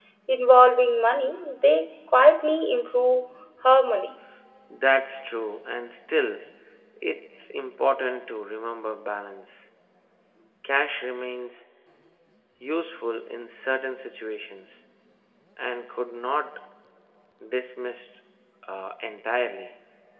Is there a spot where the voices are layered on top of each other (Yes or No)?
No